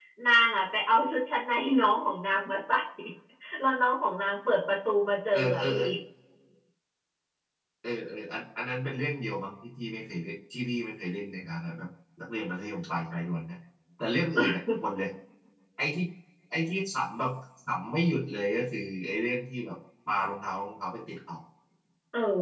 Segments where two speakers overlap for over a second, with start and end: none

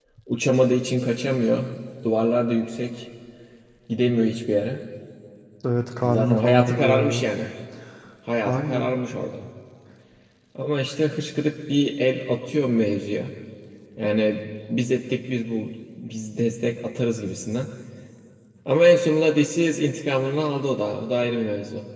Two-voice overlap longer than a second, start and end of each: 6.0-7.2

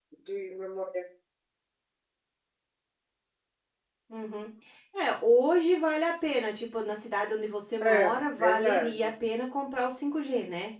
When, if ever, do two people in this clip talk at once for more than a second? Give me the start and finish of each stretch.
7.8-9.1

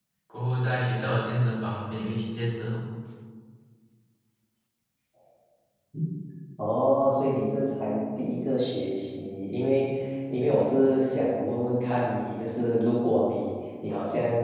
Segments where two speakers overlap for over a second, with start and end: none

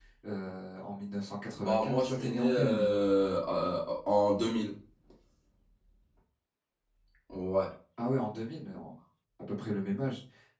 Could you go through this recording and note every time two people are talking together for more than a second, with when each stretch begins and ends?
1.5-2.9

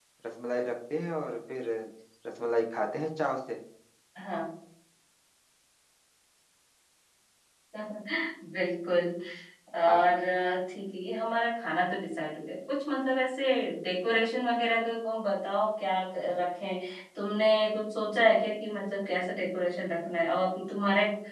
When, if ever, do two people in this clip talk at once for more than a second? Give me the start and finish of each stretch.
none

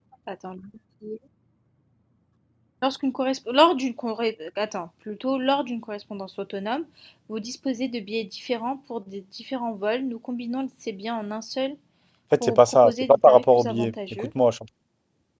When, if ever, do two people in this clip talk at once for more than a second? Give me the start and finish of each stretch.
12.4-14.3

